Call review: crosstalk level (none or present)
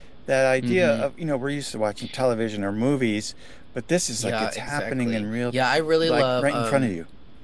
present